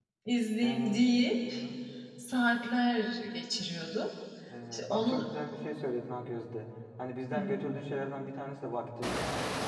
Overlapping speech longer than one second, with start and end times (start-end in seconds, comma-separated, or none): none